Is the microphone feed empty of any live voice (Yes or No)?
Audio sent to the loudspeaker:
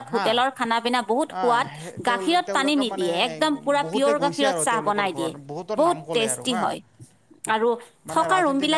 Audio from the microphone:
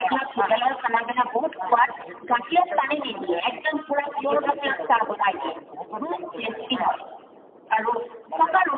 Yes